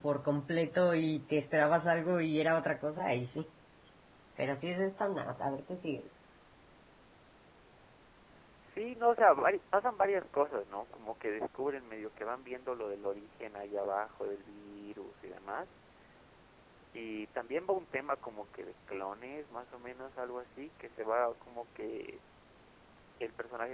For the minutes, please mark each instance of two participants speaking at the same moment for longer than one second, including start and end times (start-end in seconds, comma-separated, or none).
none